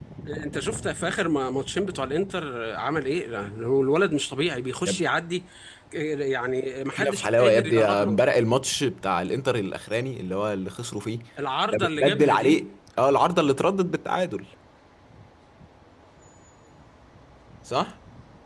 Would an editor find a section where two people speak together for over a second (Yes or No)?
Yes